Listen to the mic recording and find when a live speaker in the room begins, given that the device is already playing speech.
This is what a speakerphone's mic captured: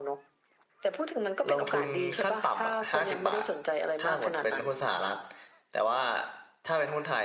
1.5 s

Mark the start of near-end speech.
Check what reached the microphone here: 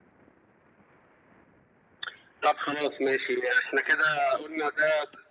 none

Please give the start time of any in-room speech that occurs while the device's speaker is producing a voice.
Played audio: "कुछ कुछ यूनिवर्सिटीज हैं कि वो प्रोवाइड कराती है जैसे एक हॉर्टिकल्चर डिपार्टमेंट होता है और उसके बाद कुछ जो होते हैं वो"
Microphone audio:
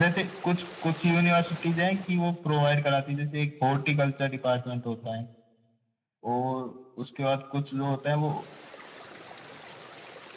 none

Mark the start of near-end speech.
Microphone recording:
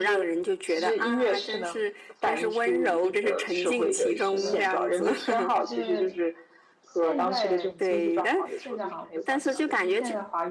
3.7 s

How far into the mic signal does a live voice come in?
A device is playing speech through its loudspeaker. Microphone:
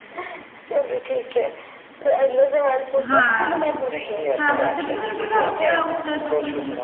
3.0 s

